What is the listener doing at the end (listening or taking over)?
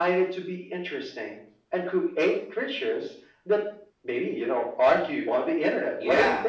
taking over